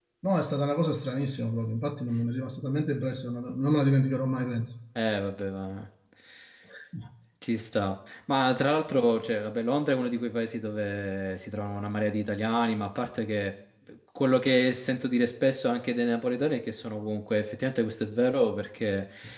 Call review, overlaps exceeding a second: none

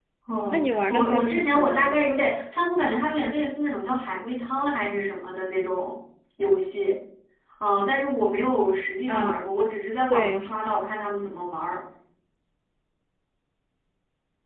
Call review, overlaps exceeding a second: present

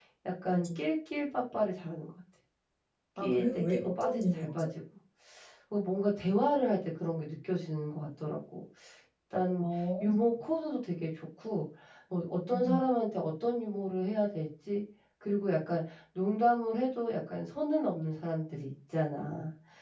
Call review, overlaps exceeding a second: present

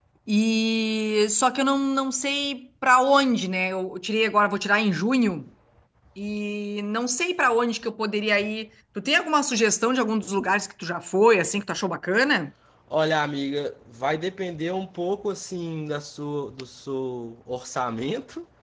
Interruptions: none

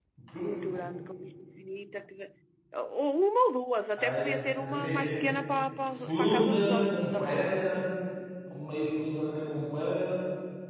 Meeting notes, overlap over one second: present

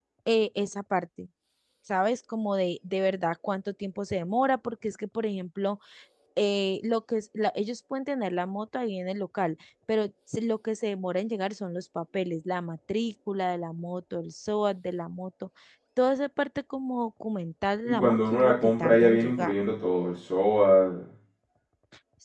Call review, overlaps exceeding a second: present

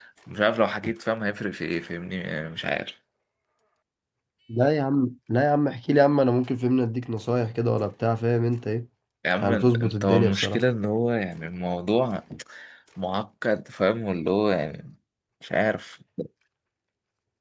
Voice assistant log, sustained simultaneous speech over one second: present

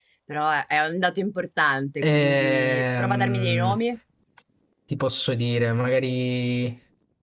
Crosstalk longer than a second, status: present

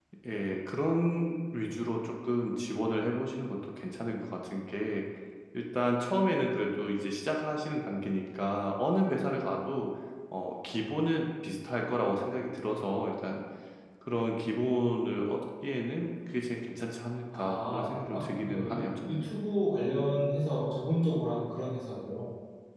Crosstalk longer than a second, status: present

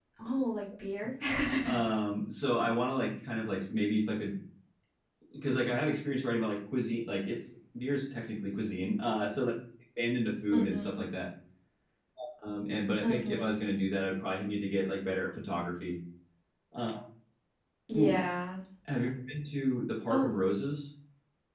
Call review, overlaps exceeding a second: none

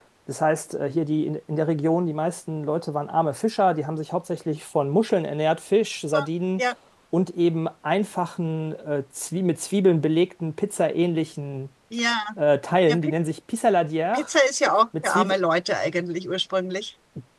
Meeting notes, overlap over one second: none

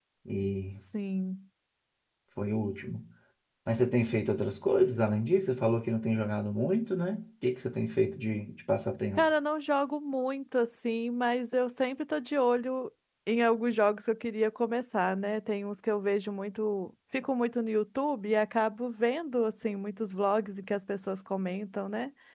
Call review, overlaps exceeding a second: none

